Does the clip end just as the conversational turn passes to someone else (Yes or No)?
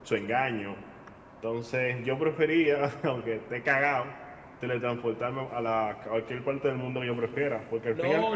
Yes